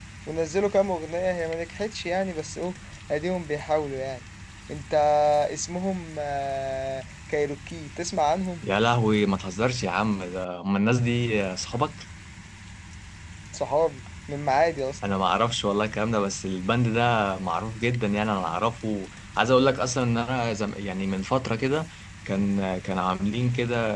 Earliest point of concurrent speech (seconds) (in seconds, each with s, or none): none